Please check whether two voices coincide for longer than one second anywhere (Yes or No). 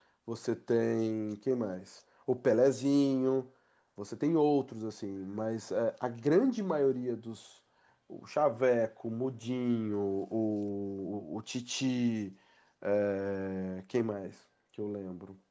No